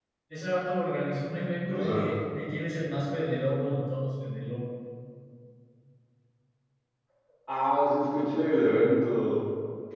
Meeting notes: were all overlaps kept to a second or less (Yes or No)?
Yes